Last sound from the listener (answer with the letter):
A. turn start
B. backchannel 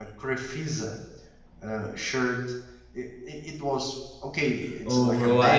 A